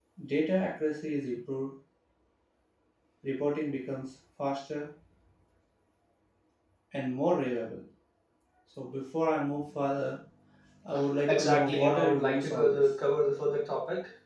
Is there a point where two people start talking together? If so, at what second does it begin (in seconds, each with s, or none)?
11.3 s